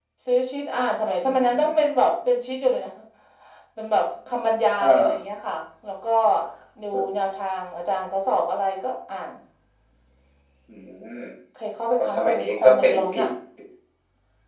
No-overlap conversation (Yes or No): No